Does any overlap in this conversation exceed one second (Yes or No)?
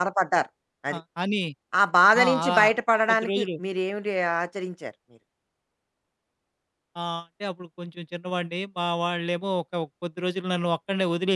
No